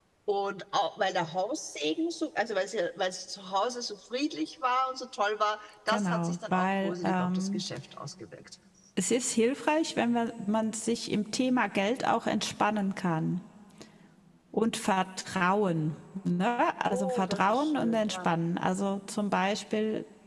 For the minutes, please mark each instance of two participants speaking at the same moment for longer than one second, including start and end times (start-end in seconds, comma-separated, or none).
5.9-7.6, 16.9-18.3